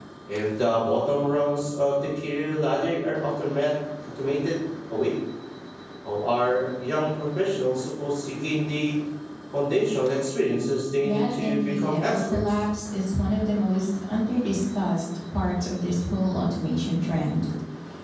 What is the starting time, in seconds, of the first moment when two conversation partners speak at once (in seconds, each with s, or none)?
11.0 s